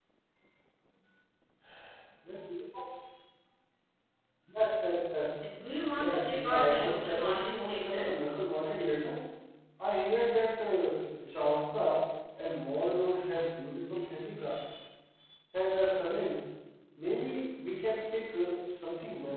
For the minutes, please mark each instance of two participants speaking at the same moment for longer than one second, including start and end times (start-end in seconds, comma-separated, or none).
5.9-8.0